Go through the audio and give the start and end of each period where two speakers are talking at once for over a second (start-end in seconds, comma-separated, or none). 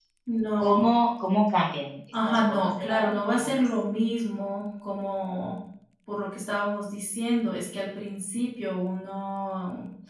2.3-3.6